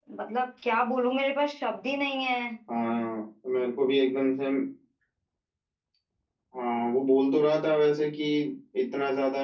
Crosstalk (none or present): none